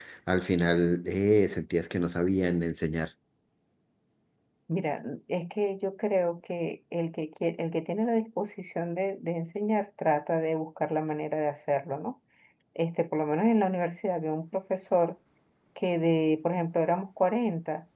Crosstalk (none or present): none